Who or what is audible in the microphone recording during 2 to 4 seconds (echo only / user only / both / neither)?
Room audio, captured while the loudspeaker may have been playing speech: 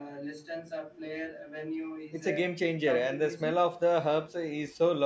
both